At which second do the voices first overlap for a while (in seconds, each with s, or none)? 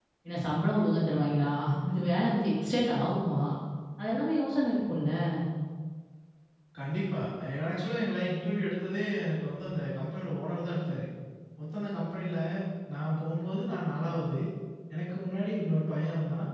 none